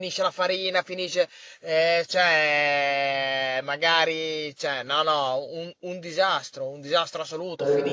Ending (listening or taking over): listening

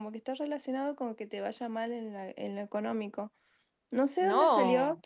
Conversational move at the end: listening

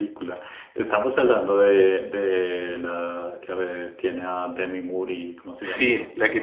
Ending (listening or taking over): taking over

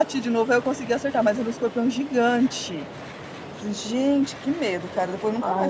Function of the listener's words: taking over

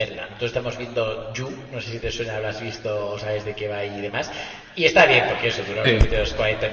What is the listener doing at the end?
listening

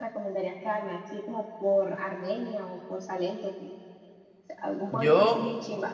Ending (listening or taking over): listening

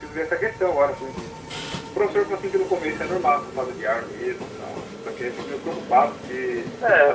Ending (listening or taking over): listening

